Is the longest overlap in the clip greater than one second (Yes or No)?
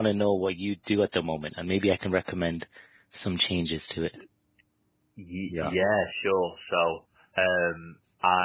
No